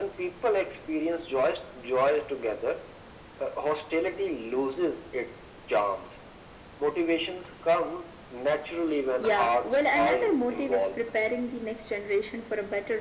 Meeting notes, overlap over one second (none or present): present